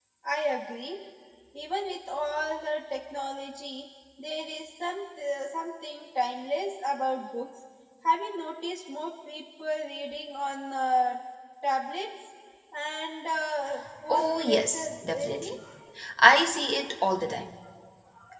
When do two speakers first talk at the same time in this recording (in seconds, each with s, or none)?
14.1 s